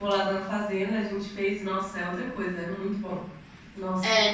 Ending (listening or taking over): taking over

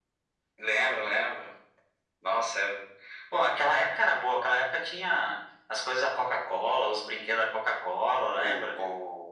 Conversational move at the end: taking over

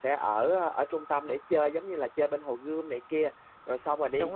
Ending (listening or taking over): listening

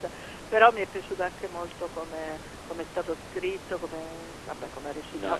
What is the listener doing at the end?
listening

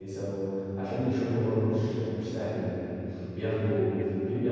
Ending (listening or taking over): listening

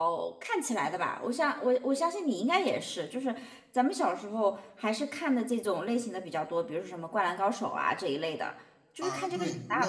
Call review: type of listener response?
taking over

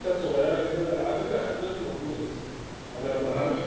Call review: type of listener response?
listening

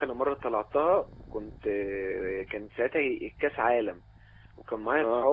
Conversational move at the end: listening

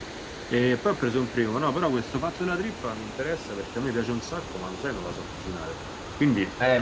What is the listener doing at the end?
taking over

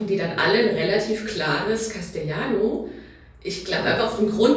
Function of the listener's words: listening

